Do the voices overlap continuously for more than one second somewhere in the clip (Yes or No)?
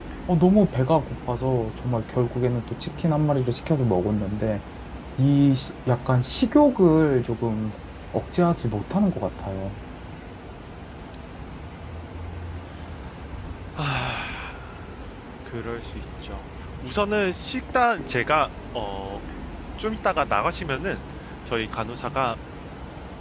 No